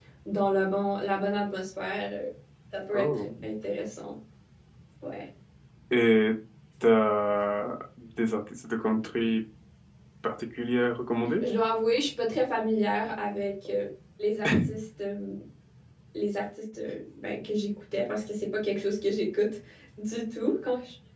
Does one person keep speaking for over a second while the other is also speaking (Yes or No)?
No